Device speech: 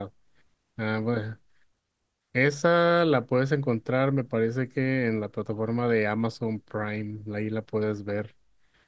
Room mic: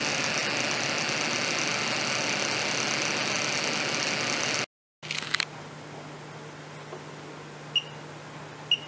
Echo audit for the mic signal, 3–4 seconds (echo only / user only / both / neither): neither